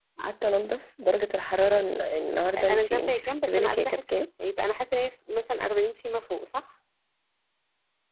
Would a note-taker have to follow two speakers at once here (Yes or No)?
Yes